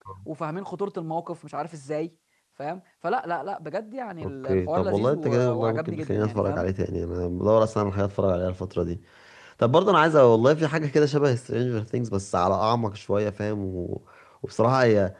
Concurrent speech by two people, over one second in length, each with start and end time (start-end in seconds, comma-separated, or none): 4.2-6.6